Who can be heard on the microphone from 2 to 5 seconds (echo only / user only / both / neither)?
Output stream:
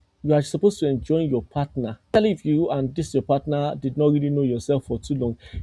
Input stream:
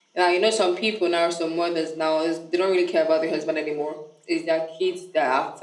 user only